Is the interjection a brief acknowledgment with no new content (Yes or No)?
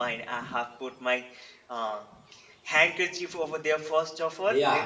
No